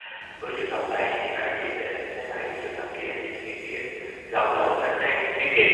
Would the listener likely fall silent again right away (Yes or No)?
No